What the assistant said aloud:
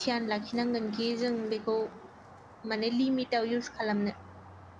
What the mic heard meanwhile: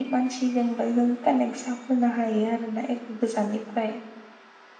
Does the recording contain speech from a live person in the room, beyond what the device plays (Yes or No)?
Yes